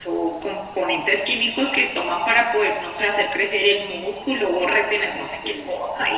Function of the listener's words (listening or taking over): listening